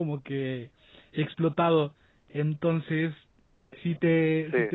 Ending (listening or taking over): listening